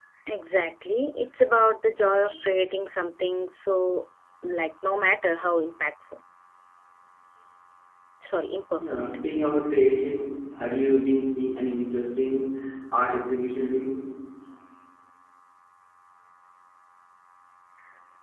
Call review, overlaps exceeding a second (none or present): none